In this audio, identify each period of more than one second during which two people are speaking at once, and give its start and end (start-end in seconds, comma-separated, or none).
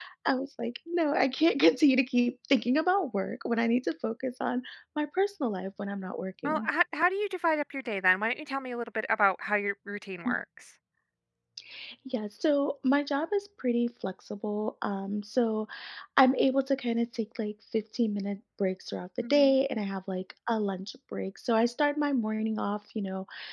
none